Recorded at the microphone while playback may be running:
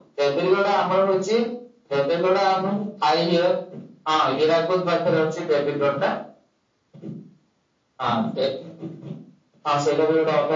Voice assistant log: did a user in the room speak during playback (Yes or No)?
No